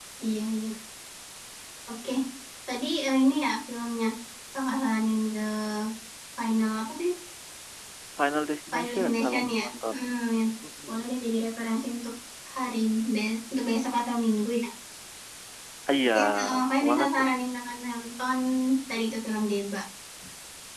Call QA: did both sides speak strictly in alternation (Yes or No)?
No